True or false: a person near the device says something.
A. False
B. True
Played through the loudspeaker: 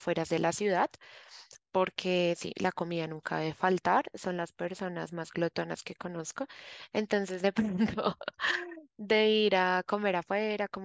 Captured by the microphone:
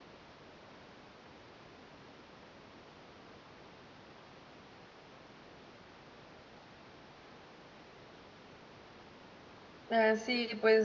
B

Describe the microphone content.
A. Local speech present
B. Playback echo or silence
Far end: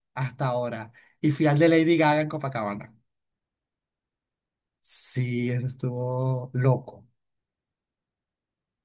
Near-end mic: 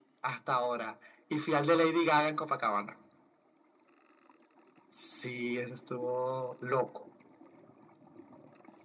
B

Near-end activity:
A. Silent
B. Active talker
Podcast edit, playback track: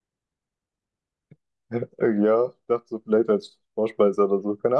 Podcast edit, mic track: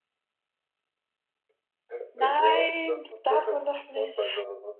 B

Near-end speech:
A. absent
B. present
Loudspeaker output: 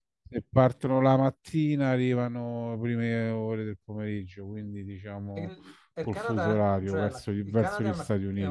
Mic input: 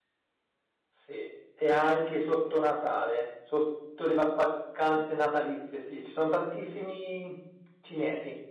B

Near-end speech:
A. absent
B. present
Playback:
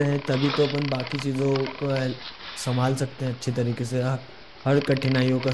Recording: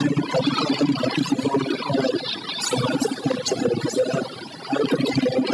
A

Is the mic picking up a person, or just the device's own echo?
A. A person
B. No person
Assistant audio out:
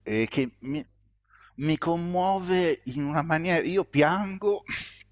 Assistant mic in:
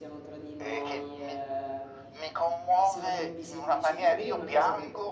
A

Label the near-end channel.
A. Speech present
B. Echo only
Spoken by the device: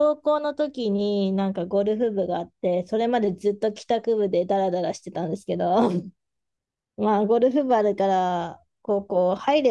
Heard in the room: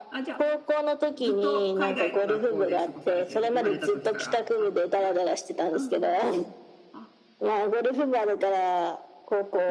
A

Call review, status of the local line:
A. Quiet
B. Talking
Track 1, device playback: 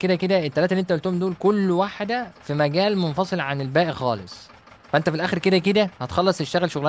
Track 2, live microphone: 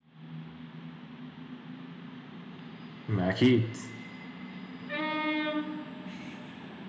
B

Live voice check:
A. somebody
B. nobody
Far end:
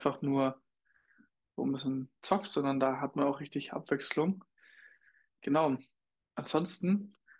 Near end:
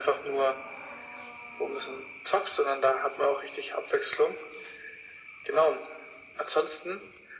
B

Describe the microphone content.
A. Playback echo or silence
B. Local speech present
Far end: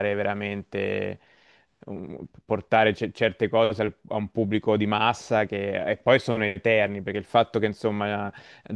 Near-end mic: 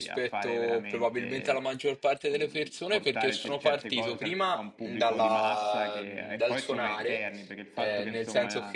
B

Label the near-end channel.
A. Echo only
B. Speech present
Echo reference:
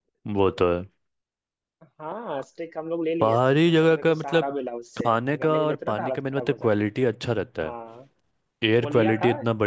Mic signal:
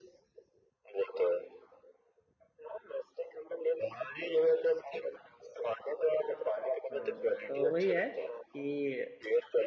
B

